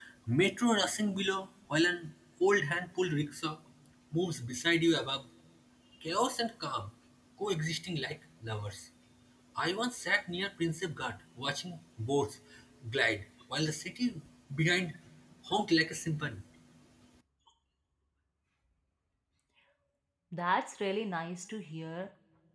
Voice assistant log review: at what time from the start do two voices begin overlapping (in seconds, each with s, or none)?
none